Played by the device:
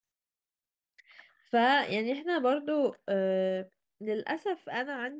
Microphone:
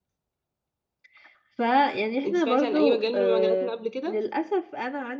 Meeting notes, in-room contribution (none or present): present